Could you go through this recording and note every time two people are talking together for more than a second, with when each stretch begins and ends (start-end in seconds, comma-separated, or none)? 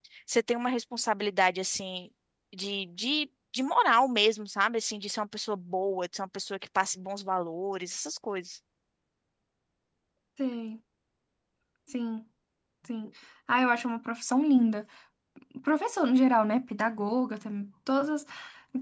none